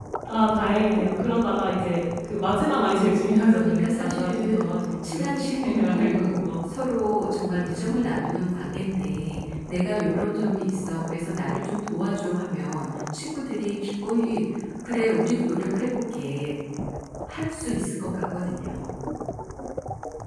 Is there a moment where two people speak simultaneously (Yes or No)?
Yes